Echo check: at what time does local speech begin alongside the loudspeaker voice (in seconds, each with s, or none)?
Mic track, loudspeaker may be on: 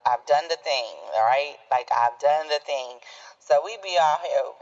none